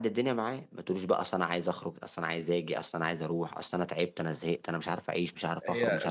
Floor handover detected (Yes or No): Yes